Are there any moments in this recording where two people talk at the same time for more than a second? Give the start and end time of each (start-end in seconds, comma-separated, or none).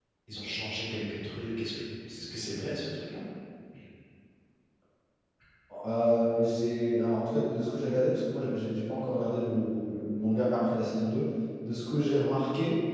none